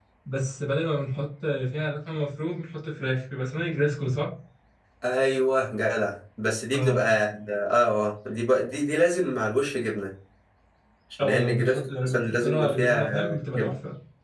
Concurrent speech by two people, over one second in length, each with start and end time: 11.2-13.1

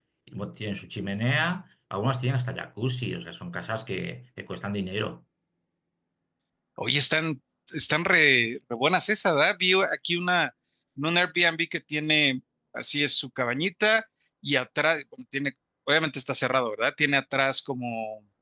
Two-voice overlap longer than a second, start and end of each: none

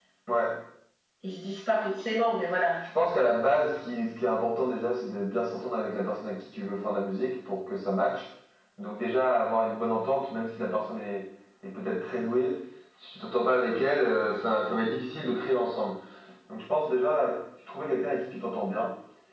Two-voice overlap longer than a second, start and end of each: none

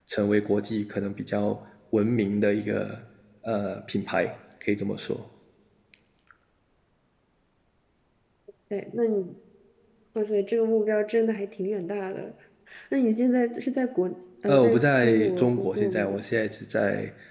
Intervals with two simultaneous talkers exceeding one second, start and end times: 14.5-16.0

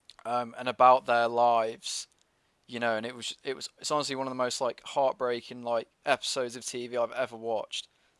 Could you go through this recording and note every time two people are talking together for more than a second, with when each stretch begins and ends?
none

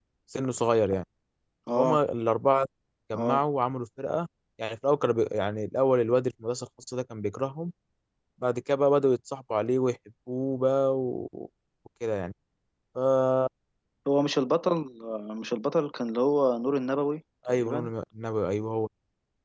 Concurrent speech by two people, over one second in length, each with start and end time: none

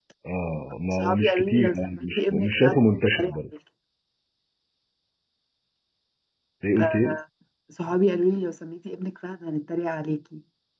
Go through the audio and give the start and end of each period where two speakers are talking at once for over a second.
0.9-2.8

